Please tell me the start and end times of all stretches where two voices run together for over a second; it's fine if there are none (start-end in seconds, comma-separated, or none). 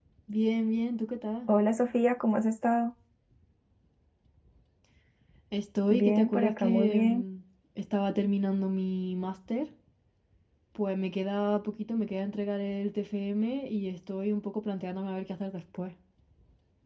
5.9-7.2